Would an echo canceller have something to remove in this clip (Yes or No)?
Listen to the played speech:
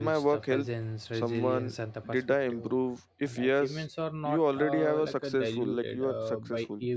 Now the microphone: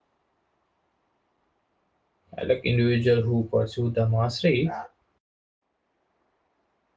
No